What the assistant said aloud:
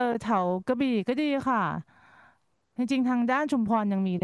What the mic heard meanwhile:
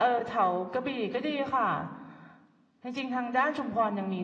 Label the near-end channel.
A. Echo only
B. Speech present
A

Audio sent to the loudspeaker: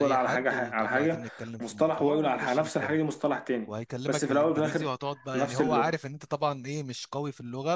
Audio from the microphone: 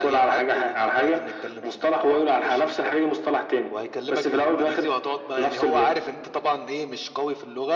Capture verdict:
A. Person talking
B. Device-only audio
B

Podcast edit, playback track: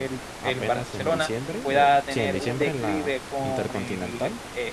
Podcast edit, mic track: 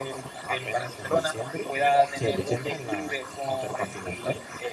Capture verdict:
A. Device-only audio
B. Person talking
A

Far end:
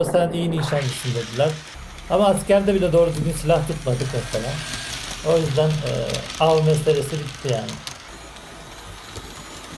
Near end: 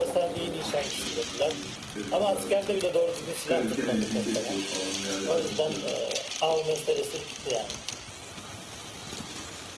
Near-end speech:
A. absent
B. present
B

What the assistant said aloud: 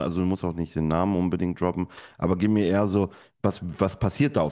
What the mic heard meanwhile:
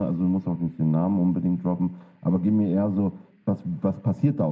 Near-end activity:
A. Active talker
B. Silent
B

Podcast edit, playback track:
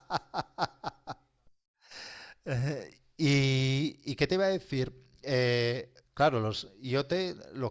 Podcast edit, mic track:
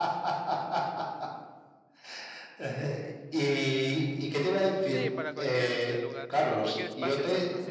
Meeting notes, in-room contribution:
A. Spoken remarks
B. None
A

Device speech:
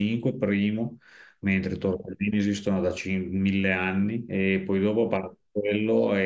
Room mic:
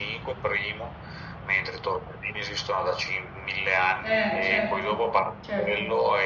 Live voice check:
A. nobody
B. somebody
B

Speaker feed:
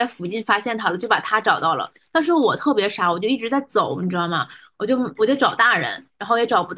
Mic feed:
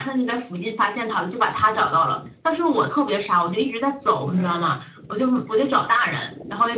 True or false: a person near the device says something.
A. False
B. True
A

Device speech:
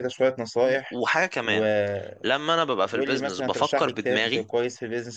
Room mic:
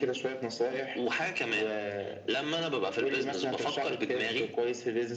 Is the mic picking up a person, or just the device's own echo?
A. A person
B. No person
B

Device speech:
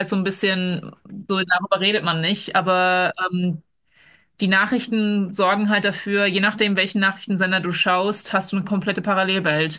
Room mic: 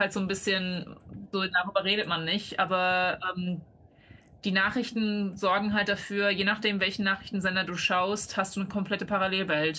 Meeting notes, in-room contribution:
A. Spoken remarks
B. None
B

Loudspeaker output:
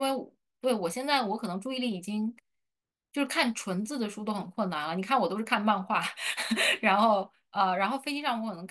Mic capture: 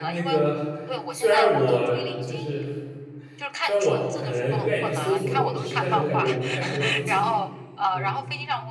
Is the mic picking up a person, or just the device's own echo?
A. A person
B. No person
A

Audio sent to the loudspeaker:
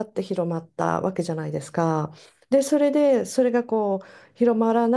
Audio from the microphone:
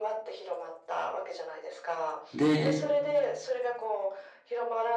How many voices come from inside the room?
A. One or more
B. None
A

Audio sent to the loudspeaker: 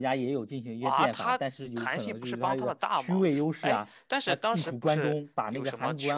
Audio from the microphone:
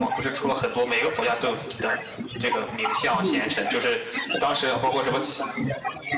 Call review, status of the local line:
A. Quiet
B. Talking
B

